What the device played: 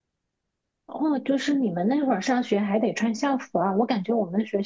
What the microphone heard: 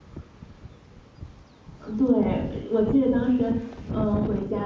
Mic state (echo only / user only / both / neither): user only